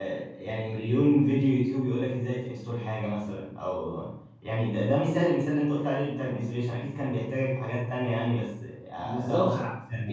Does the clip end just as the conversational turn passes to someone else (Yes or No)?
Yes